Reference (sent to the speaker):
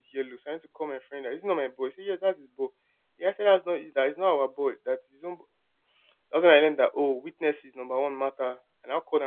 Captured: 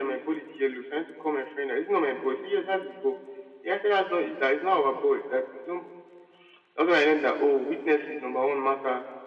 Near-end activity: none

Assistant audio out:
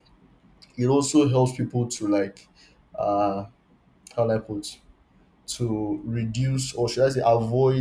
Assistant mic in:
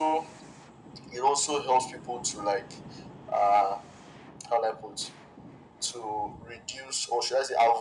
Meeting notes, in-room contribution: none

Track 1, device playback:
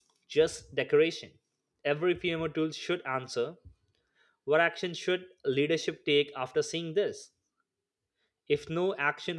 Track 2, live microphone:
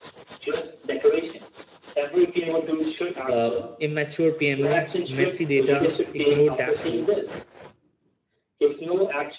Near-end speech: present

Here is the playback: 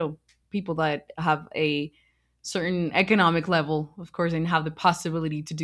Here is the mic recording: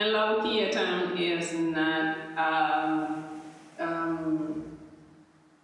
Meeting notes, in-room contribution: present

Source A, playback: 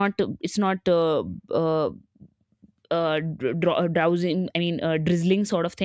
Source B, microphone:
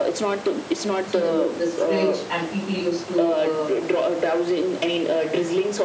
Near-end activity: present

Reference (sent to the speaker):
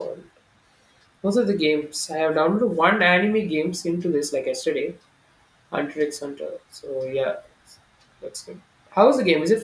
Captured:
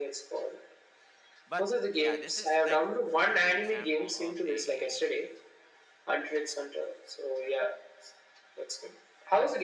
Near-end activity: present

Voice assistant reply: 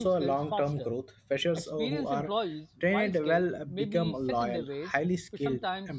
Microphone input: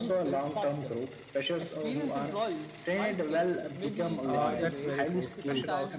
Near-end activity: present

